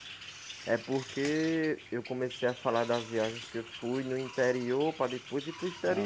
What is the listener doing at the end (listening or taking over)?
taking over